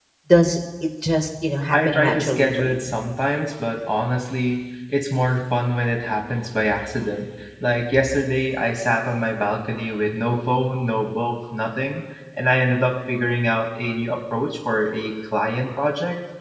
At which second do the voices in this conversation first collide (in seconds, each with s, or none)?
1.7 s